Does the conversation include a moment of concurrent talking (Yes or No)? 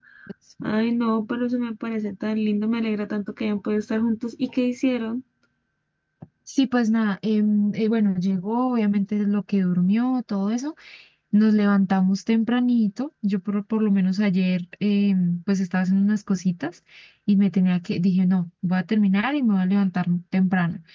No